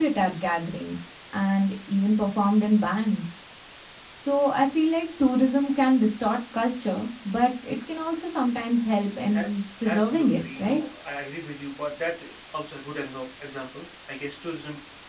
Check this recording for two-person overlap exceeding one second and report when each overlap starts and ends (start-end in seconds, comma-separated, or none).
9.3-10.8